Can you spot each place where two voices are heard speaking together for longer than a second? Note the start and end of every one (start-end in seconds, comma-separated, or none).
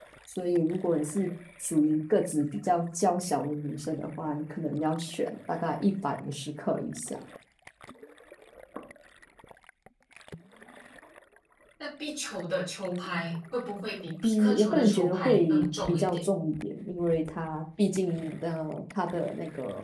14.2-16.2